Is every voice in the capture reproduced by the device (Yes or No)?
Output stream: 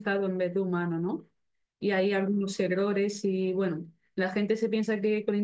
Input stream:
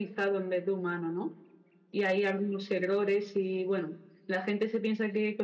Yes